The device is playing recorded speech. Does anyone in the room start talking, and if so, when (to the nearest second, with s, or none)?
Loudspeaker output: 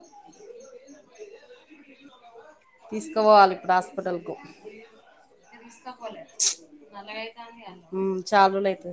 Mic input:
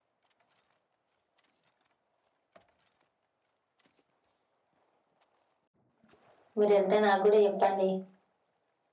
7 s